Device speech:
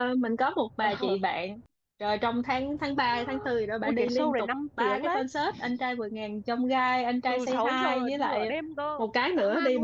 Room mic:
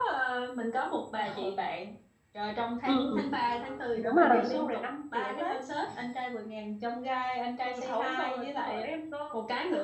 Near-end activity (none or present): present